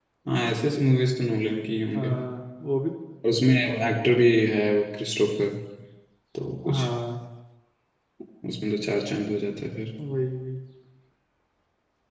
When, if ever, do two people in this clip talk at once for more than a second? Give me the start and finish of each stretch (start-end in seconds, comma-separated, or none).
none